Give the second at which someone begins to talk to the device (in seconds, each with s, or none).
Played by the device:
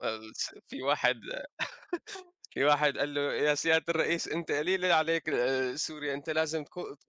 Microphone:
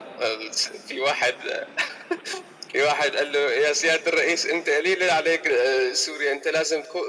none